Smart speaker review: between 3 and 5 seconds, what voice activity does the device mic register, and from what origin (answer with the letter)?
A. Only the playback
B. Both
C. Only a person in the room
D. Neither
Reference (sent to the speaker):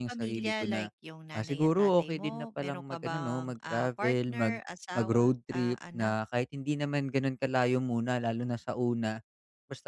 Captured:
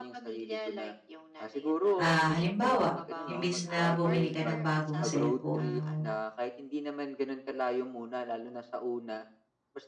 B